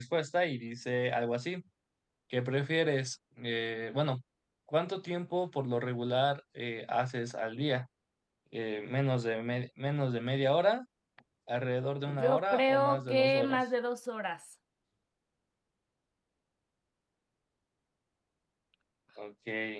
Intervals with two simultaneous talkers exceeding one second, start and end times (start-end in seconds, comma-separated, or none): 12.2-13.6